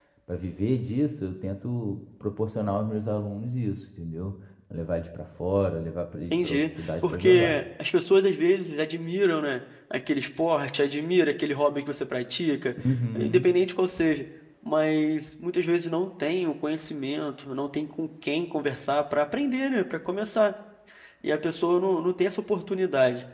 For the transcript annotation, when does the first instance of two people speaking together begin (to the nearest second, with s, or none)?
6 s